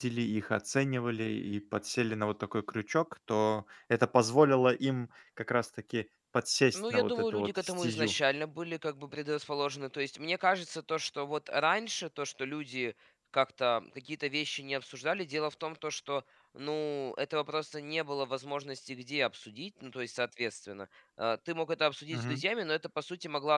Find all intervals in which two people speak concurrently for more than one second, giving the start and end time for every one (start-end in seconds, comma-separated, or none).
6.7-8.1